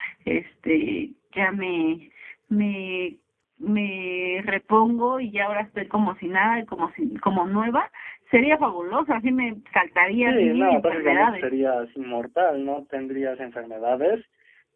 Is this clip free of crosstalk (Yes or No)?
No